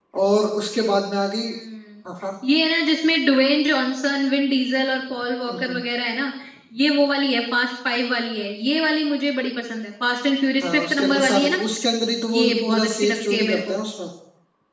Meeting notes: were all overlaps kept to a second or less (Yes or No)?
No